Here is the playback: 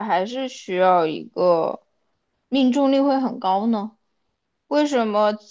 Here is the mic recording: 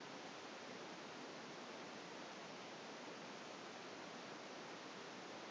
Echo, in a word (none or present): none